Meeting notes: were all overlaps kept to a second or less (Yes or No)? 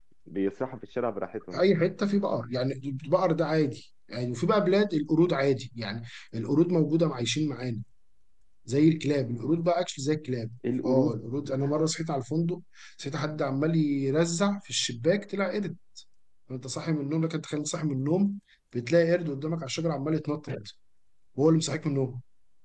Yes